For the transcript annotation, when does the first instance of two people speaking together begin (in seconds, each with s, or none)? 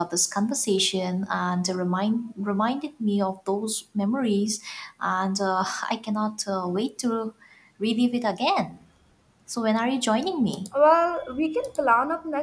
none